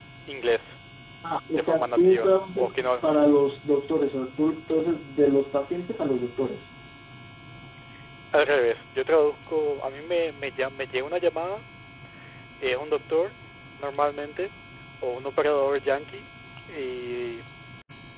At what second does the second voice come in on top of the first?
1.6 s

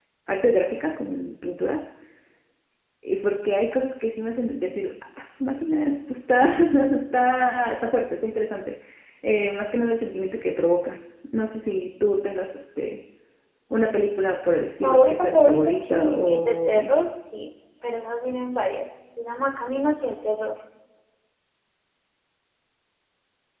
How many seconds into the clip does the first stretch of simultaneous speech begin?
14.8 s

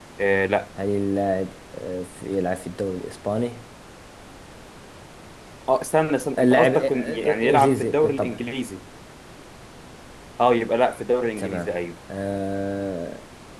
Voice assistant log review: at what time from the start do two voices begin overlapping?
6.4 s

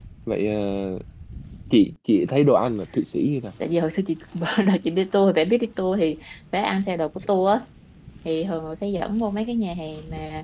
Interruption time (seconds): none

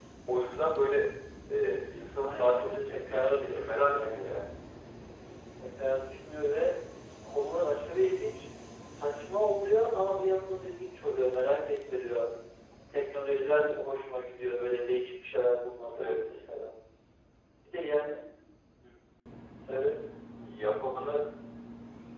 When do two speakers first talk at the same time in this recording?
2.2 s

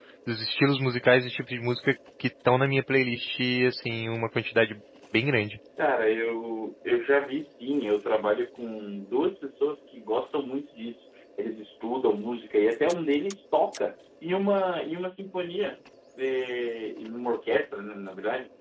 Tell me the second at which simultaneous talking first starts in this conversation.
none

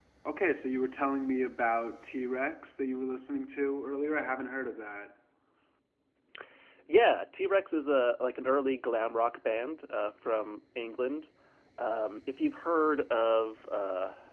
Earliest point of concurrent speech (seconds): none

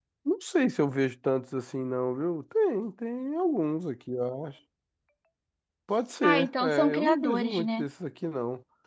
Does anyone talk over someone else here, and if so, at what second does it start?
6.2 s

